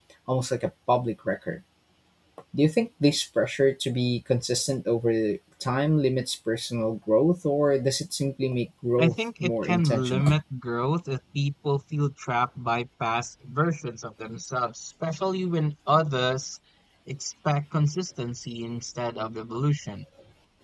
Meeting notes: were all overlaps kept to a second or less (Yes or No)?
No